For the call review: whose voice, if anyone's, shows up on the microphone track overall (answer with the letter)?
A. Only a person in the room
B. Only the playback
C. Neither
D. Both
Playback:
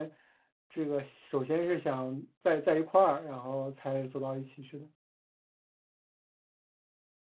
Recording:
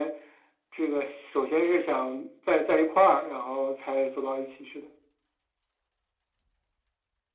B